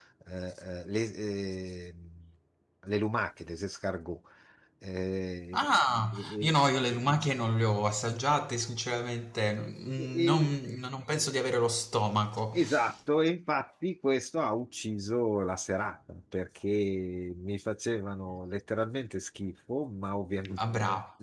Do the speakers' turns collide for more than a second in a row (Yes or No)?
No